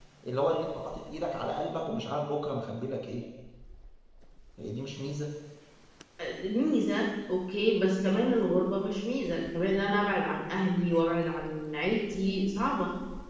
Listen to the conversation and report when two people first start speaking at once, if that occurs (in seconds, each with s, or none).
none